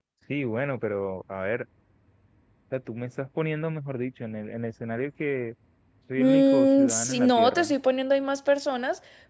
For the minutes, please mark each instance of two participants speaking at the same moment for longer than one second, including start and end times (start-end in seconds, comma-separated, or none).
6.2-7.7